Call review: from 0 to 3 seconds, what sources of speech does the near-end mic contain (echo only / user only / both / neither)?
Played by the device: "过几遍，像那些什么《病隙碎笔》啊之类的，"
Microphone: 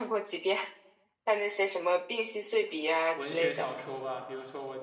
echo only